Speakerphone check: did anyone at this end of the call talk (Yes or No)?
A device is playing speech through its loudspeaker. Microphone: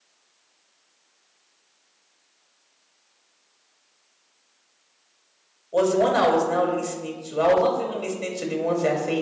Yes